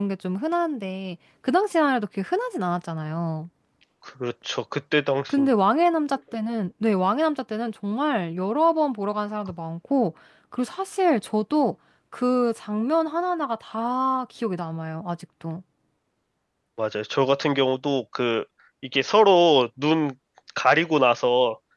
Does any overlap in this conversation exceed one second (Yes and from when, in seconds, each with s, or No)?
No